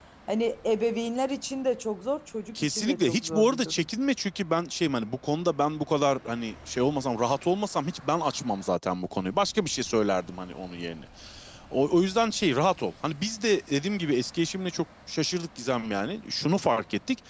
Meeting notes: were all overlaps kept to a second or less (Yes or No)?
No